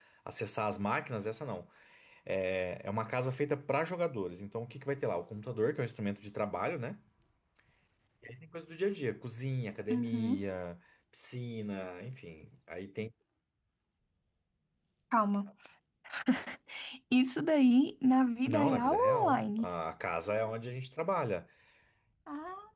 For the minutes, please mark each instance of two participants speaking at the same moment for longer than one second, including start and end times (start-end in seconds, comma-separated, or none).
18.5-19.7